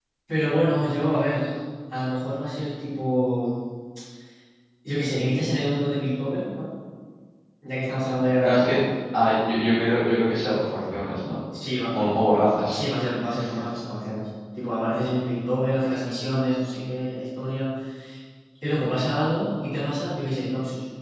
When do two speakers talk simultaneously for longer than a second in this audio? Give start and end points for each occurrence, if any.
none

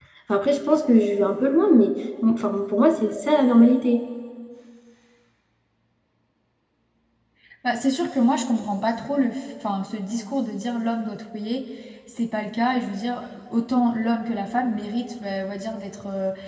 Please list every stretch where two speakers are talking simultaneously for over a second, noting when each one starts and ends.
none

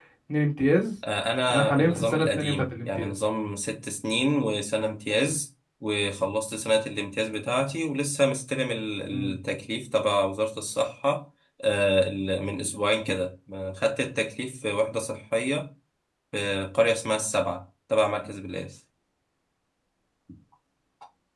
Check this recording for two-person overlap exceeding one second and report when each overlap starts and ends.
1.5-3.1

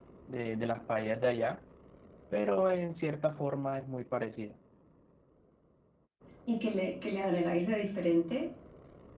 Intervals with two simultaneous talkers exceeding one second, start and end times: none

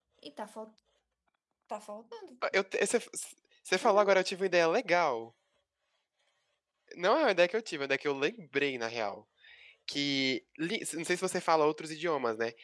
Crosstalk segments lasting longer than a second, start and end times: none

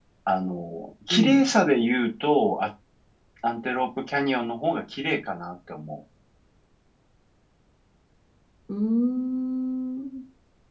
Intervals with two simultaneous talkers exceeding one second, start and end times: none

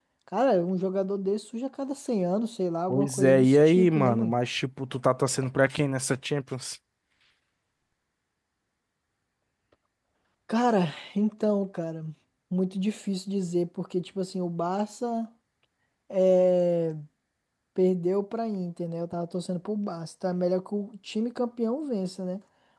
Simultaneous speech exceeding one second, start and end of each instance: 2.9-4.3

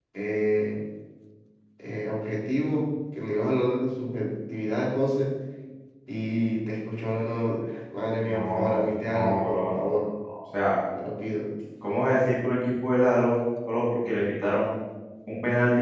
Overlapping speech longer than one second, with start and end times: 8.2-9.9

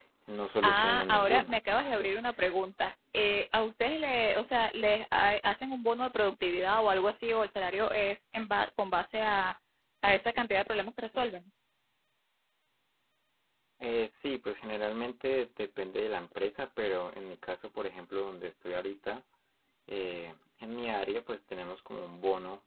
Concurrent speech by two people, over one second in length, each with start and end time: 0.6-2.1

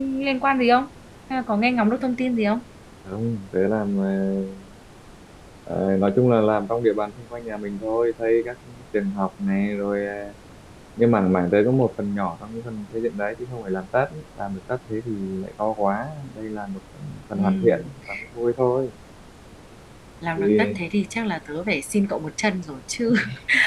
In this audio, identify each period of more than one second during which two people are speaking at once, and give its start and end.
none

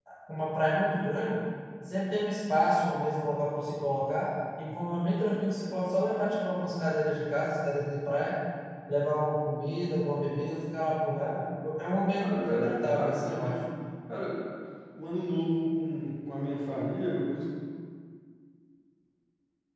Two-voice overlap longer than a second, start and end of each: 12.1-13.5

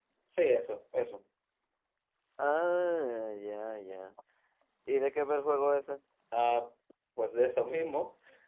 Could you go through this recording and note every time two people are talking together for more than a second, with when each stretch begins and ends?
none

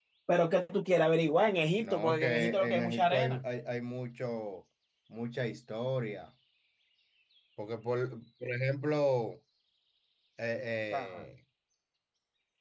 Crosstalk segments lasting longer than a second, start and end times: 1.8-3.4

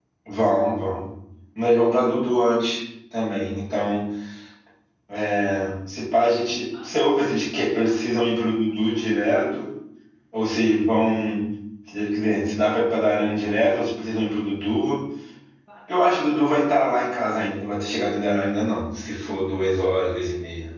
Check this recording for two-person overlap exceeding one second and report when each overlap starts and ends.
none

